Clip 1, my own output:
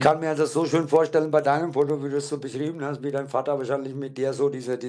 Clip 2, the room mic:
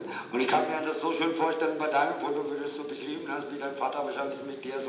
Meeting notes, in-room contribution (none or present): none